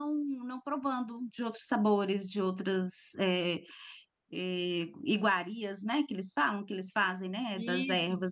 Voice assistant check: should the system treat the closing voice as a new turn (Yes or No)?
Yes